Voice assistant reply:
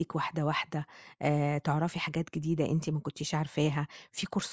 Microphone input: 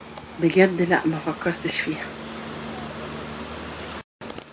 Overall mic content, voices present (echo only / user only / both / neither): user only